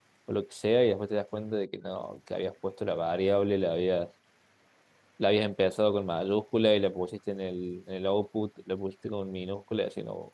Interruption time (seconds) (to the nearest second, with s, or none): none